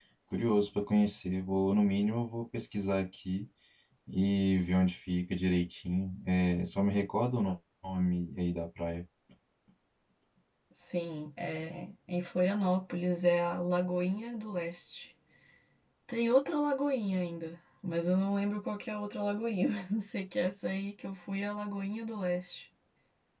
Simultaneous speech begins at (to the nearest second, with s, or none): none